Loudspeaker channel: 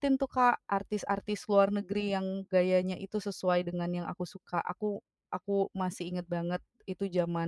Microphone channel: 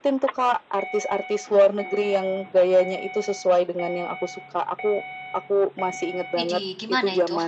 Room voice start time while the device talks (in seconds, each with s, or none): 6.4 s